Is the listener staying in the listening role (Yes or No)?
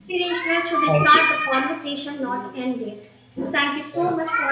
Yes